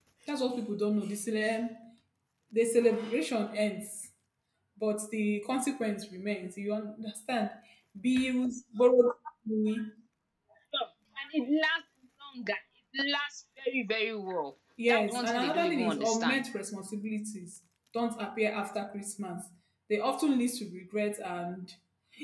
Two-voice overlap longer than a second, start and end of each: 14.9-16.4

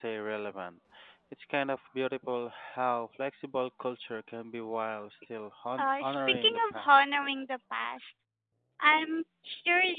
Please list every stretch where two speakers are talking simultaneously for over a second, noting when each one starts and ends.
5.8-7.0

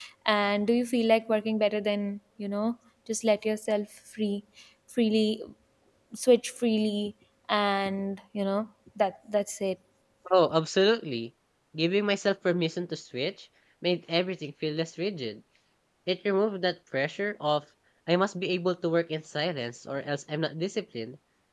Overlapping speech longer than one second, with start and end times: none

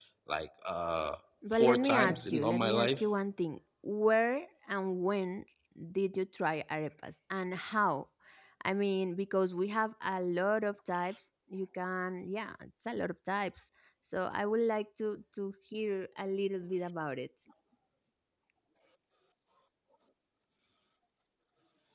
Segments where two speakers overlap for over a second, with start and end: 1.5-3.0

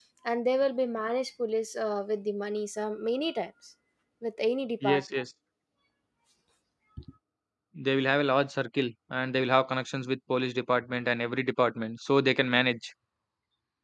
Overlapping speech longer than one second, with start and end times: none

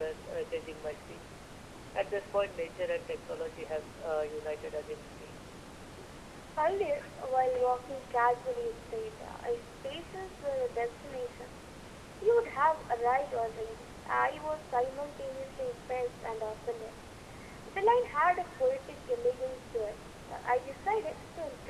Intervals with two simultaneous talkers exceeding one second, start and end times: none

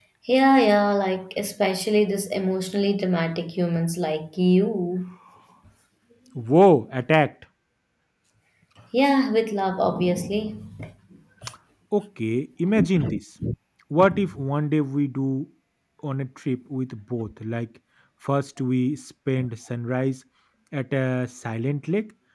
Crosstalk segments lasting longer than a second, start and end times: none

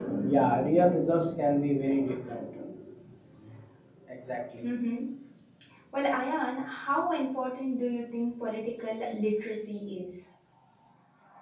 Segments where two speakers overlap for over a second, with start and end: none

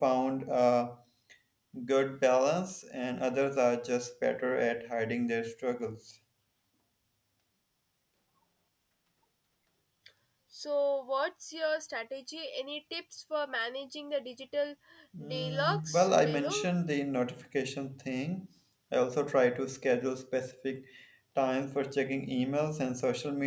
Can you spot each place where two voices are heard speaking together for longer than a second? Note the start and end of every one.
15.3-16.7

